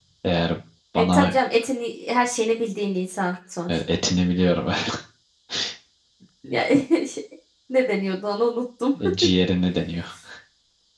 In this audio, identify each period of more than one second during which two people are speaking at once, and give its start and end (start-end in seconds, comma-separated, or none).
none